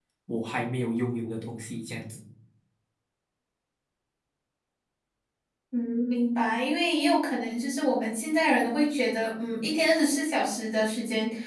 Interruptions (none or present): none